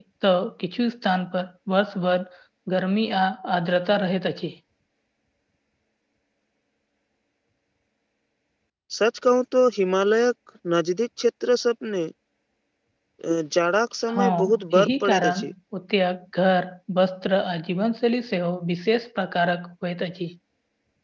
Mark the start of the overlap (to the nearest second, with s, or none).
14 s